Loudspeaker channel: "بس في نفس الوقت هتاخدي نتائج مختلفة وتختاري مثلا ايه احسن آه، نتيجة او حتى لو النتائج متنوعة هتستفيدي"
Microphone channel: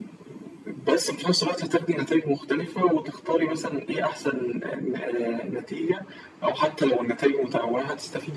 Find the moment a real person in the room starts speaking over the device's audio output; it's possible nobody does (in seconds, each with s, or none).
none